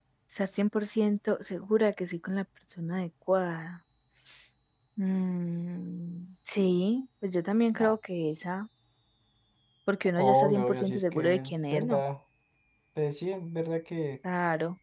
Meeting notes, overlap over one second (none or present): present